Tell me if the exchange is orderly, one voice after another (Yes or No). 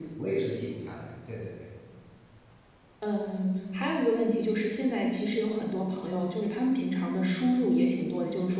Yes